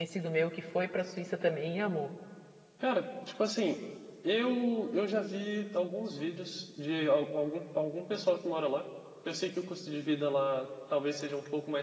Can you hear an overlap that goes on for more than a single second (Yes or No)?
No